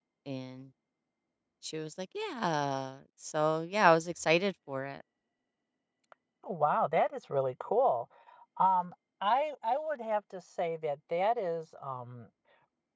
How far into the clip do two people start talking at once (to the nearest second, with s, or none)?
none